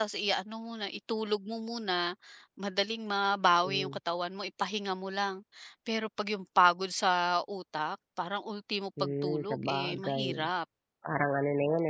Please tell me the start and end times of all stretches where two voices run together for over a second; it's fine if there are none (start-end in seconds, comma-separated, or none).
9.0-10.5